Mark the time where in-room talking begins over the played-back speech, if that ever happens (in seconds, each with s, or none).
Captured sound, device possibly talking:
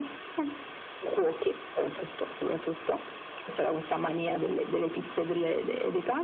none